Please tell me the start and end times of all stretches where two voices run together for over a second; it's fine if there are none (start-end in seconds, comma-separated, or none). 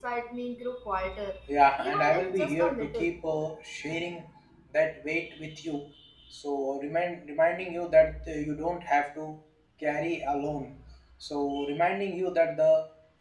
1.8-3.0